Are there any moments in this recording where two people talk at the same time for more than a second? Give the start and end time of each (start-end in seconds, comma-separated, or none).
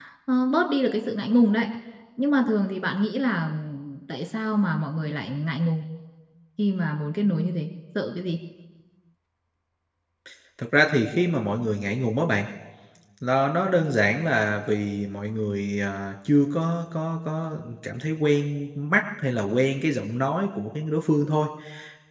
none